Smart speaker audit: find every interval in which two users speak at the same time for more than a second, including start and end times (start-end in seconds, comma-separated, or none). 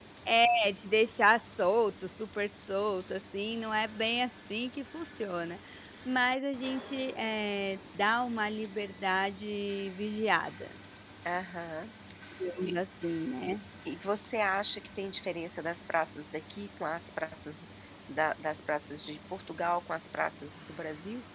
none